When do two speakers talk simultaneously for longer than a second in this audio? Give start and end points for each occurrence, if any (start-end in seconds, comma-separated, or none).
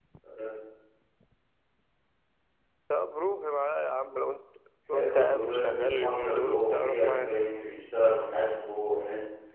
4.9-7.3